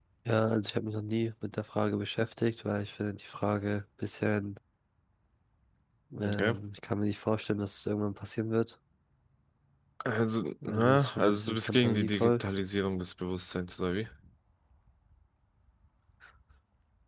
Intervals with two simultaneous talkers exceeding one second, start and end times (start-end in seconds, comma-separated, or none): 10.7-12.4